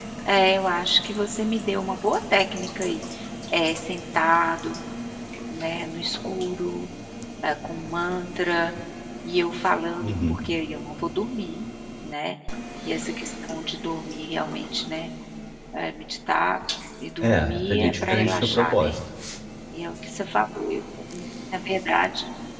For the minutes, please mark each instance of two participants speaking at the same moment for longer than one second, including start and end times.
17.2-19.0

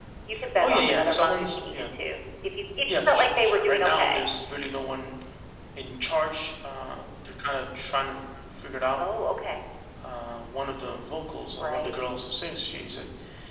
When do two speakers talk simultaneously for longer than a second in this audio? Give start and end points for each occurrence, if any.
0.6-1.9, 2.9-4.2

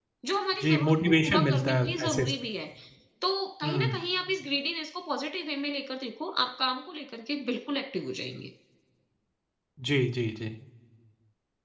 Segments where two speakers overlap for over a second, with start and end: 0.6-2.3

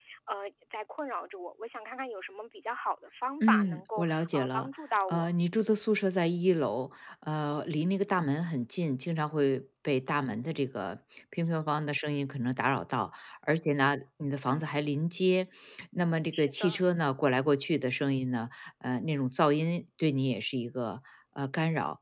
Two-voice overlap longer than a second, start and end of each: 3.4-4.7

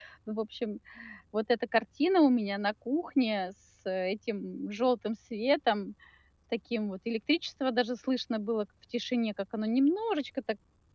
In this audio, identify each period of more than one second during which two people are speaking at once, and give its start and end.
none

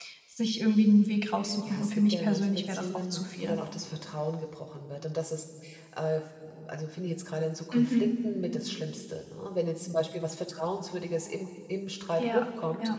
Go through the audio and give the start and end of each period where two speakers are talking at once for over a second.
1.7-3.6

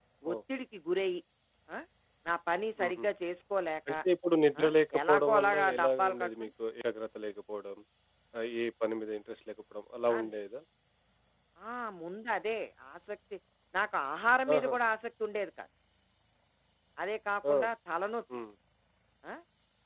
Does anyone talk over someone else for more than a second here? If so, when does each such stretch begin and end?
5.1-6.5

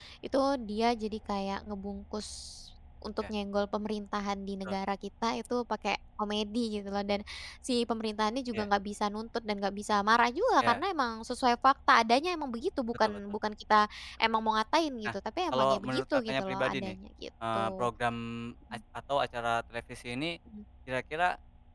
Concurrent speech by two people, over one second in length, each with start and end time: 15.5-17.0

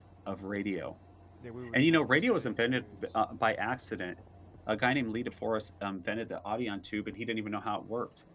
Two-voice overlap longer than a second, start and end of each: 1.7-3.2

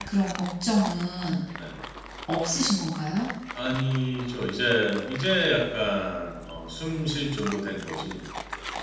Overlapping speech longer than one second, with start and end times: none

